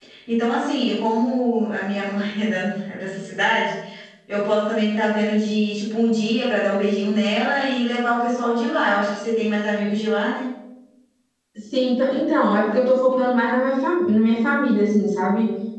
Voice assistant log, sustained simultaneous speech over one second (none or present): none